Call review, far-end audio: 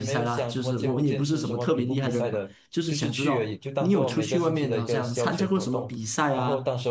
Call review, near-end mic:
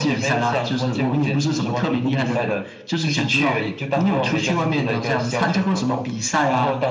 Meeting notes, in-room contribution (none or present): none